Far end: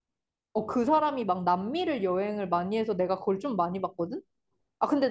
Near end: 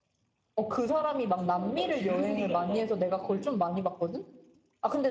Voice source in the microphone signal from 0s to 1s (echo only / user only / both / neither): echo only